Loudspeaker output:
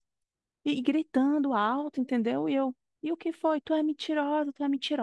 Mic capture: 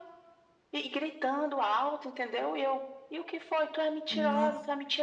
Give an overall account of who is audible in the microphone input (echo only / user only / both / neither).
both